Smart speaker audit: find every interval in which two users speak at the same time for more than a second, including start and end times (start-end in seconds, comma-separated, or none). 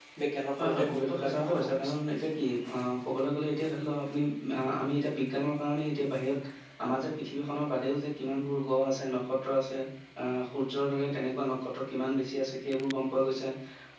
0.6-1.9